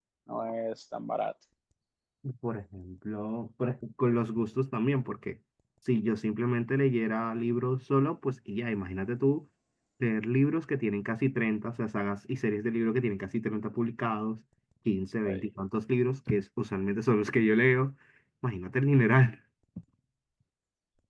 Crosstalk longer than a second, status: none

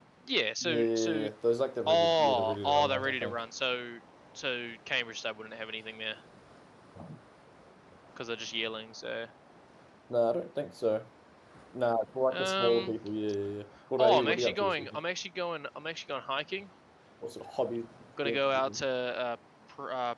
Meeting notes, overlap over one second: present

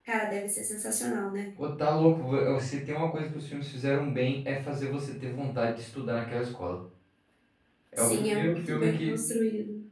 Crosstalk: present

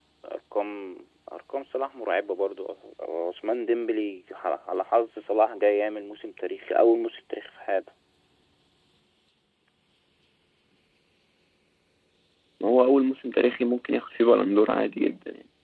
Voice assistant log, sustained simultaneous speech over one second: none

